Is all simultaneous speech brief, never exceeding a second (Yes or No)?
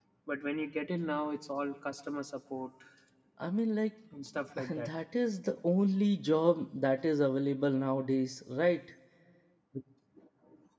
Yes